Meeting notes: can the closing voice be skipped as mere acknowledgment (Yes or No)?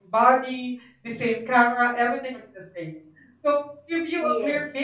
Yes